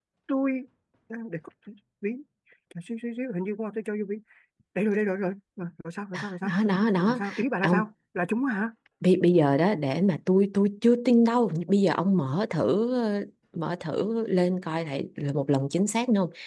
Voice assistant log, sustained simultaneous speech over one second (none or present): none